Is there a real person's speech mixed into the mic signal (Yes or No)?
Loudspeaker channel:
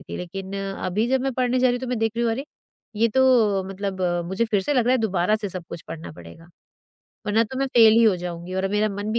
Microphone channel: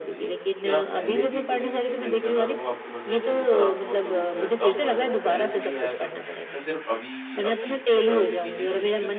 Yes